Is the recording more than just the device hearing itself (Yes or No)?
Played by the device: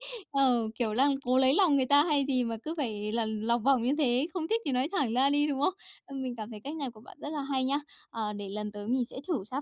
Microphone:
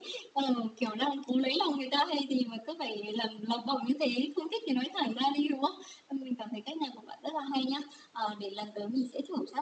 No